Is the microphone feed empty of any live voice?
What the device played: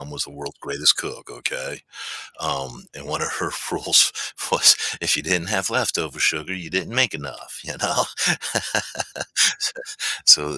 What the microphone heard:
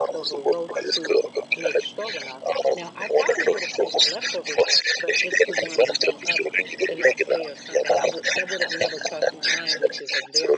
No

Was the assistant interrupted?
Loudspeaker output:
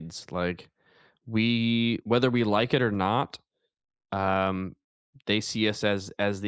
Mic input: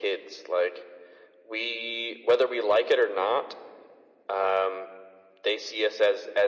No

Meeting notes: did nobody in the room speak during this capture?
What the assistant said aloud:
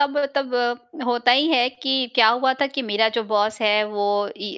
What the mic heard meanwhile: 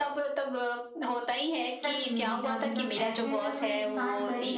No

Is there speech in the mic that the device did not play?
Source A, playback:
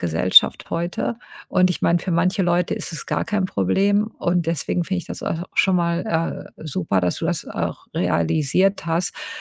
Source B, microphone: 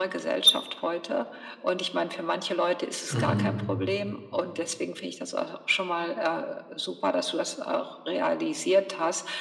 Yes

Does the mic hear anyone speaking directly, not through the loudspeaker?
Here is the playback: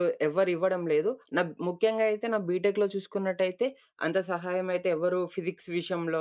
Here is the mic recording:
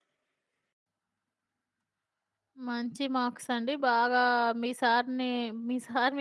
Yes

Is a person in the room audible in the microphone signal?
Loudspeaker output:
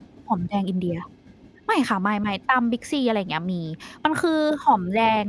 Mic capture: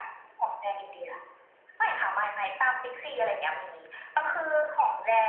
No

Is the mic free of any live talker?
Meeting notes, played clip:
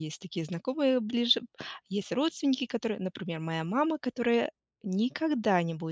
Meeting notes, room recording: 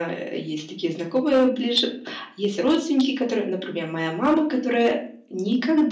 Yes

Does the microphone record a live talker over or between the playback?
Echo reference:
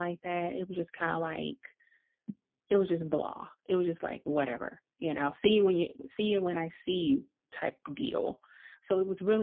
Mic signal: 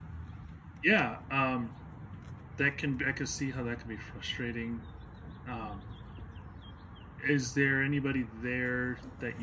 Yes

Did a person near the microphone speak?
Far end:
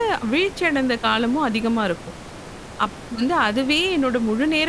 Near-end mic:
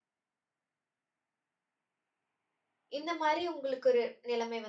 Yes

